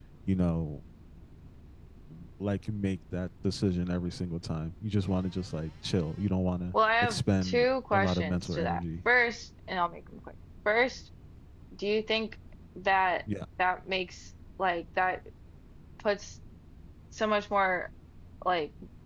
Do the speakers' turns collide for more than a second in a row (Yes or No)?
Yes